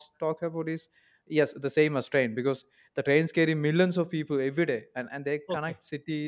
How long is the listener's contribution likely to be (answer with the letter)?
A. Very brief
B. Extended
A